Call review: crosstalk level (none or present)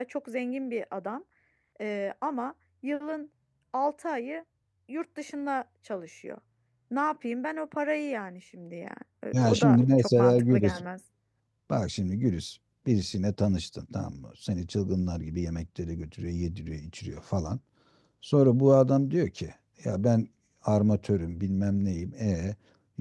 present